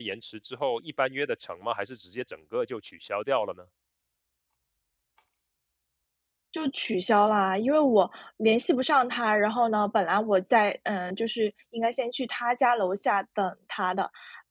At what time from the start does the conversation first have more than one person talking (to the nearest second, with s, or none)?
none